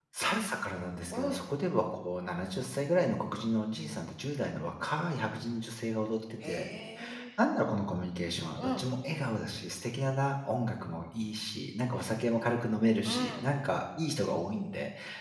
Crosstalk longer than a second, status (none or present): none